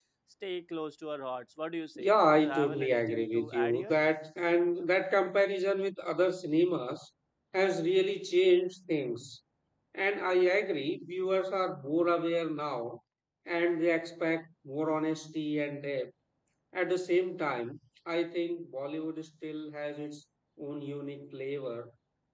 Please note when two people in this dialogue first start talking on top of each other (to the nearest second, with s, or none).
2 s